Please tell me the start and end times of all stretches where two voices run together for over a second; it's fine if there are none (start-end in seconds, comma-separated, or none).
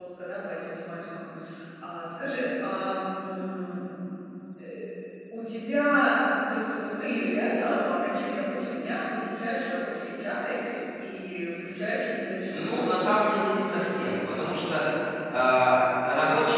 none